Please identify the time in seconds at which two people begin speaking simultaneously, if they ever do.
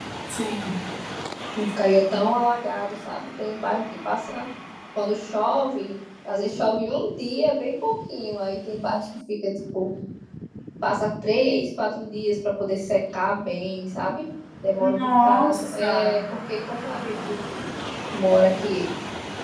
14.8 s

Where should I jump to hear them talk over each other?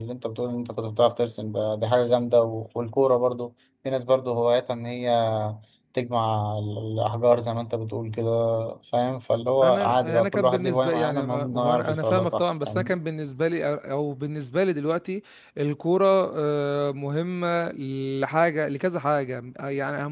9.6 s

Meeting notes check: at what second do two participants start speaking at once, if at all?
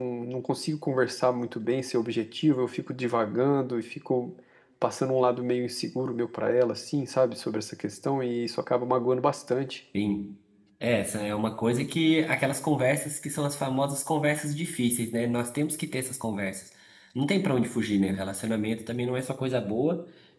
none

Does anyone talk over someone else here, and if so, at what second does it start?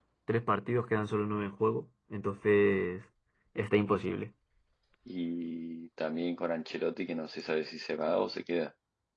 none

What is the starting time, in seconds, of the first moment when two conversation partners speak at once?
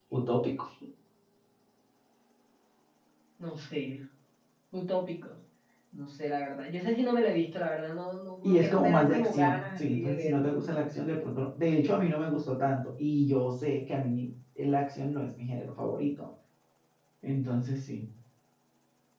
8.4 s

